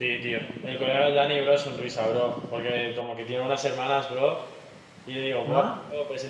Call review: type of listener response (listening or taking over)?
listening